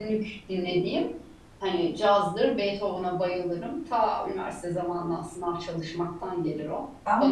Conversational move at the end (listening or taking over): taking over